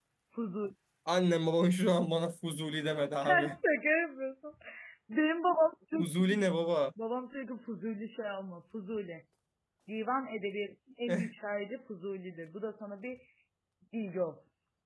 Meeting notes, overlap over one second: none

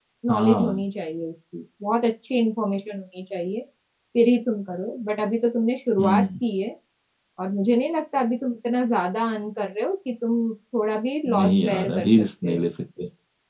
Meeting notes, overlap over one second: present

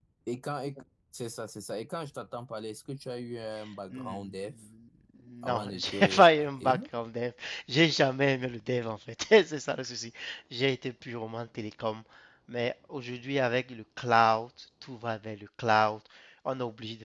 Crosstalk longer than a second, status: present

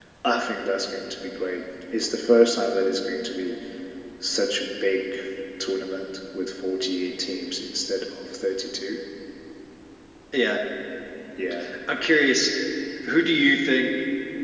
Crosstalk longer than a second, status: none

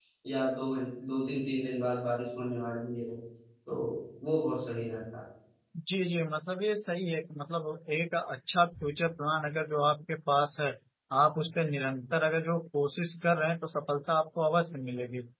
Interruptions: none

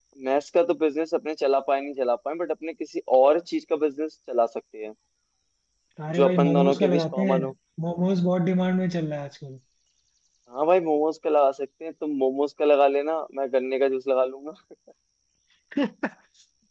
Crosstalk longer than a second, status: present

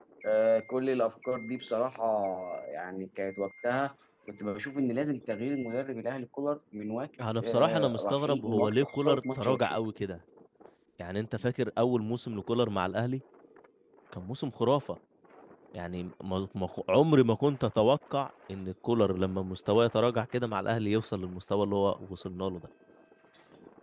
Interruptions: present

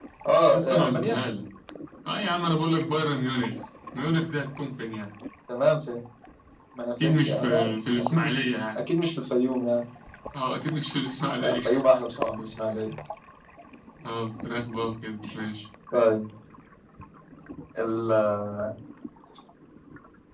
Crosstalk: present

